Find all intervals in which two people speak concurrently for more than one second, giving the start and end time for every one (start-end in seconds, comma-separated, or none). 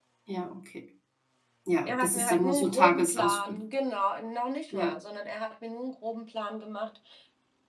1.9-3.6